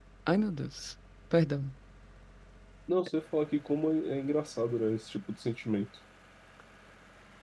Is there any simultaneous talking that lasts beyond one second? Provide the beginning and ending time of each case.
none

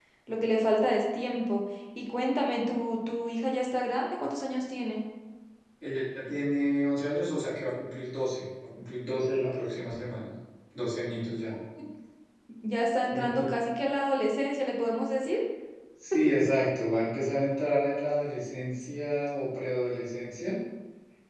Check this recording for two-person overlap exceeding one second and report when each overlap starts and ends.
none

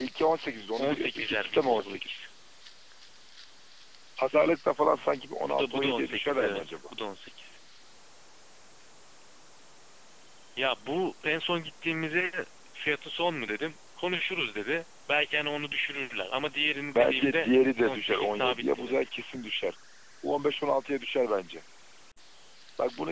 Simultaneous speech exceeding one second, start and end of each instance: 0.8-2.3, 5.5-6.8, 16.9-19.0

